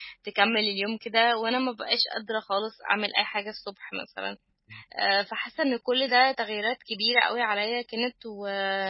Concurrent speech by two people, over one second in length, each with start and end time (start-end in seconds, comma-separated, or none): none